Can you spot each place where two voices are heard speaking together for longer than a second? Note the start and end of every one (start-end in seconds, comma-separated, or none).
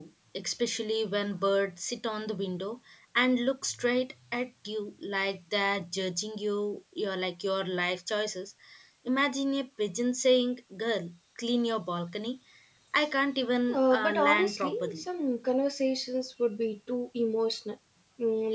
13.7-15.0